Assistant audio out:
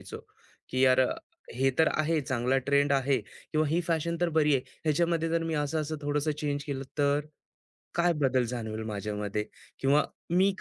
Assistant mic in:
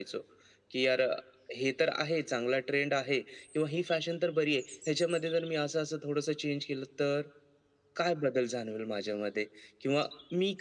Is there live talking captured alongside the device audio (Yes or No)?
No